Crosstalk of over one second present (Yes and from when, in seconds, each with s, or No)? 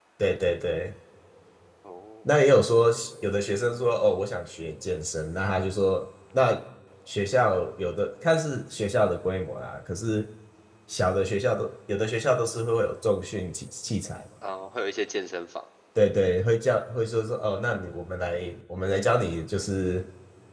No